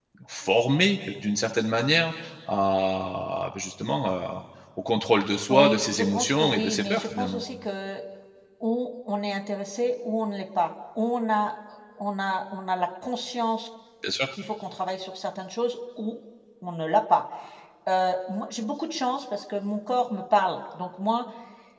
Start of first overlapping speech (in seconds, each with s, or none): 5.5 s